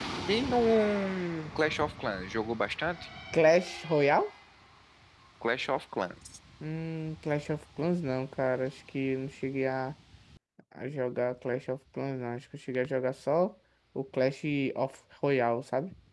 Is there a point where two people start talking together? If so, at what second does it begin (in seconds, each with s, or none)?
none